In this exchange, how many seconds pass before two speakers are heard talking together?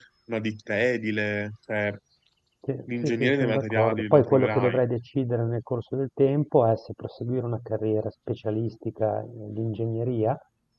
3 s

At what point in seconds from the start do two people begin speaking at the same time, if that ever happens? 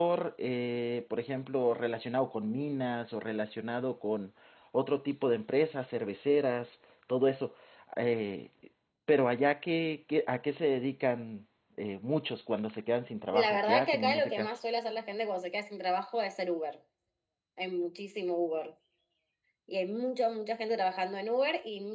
13 s

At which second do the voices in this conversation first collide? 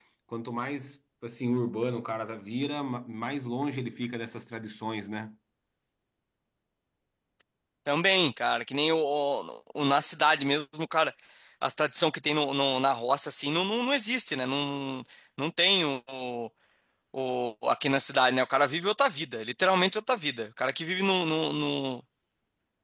none

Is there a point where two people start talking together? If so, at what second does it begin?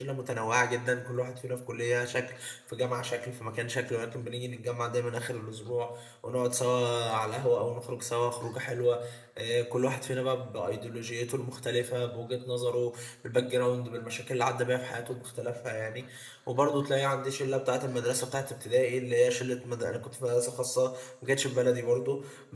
none

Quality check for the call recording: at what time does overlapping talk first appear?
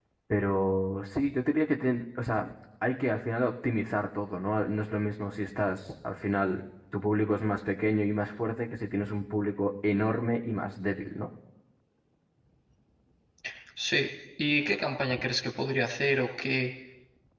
none

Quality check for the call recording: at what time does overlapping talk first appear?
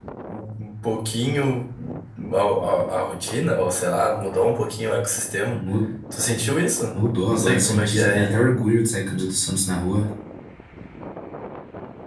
7 s

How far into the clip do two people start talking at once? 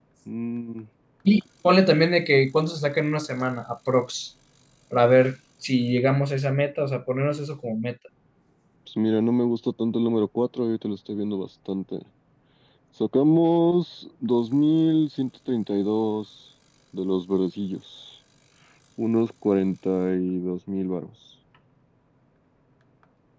none

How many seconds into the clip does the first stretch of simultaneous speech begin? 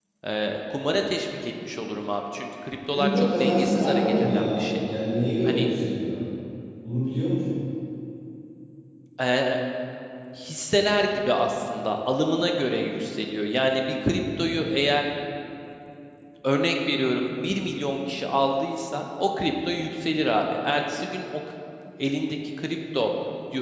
3 s

